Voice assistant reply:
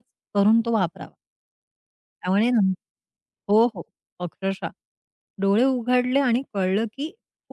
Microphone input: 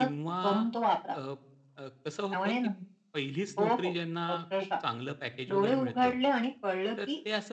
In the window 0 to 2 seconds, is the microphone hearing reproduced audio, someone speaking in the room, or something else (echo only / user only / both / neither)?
both